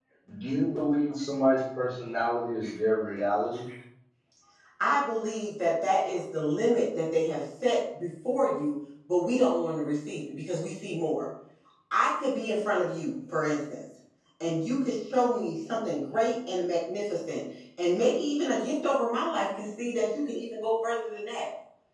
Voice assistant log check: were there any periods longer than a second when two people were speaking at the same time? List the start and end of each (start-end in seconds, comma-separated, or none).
none